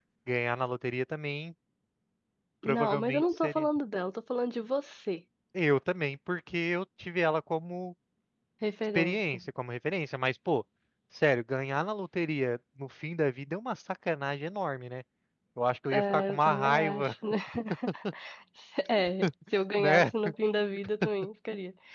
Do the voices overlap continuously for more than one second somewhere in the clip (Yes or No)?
Yes